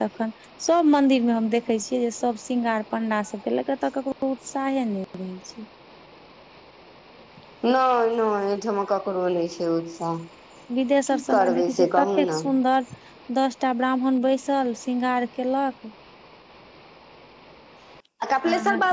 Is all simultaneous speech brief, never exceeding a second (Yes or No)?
No